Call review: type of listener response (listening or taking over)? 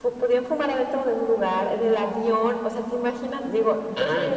listening